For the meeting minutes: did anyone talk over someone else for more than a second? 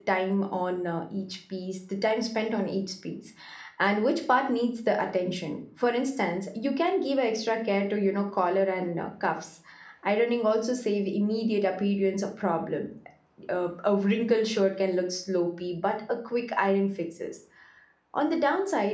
No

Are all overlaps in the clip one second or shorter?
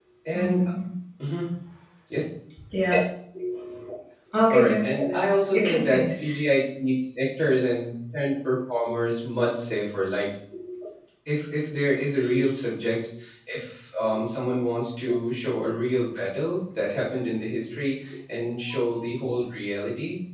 No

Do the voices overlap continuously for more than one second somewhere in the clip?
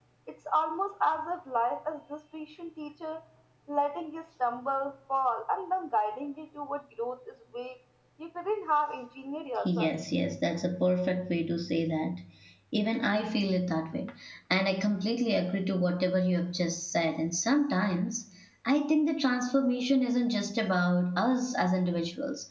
No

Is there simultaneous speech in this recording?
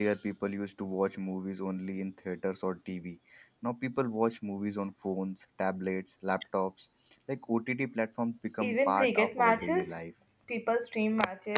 Yes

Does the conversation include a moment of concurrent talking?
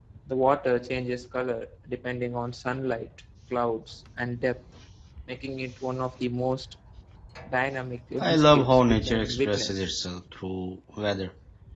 Yes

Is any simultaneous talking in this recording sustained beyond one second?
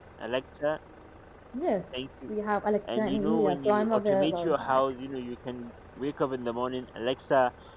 Yes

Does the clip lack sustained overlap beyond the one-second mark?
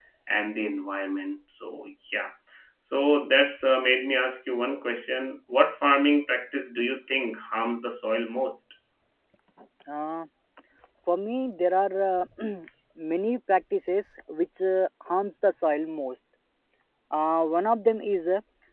Yes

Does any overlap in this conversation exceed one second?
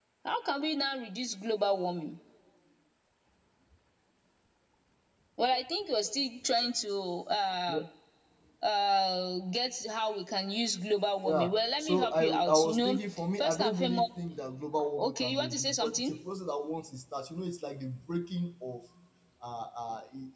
Yes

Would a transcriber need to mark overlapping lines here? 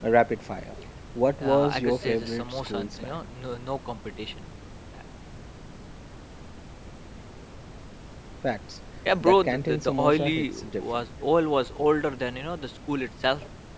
Yes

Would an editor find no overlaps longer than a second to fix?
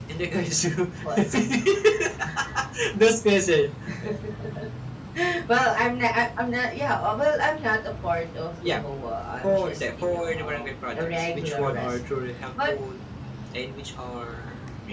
No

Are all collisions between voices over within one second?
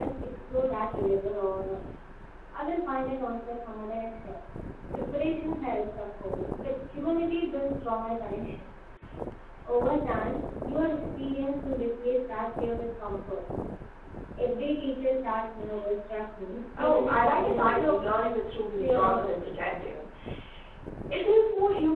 No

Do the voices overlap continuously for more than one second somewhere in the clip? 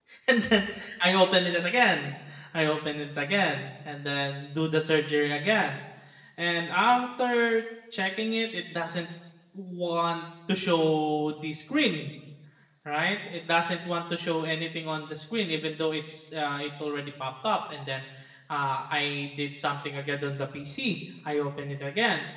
No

